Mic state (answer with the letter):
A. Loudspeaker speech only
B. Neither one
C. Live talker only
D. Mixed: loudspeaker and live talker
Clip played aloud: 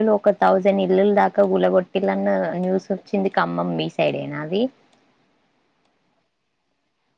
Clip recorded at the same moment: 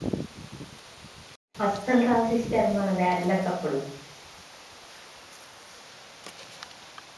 C